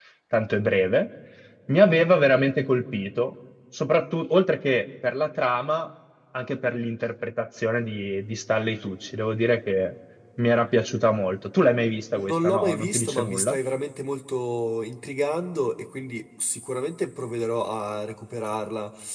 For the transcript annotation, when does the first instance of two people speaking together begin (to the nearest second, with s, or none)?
12 s